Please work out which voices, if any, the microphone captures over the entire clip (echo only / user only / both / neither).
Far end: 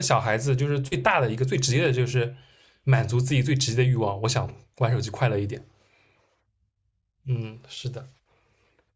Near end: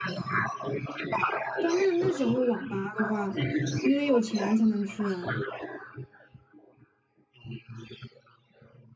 both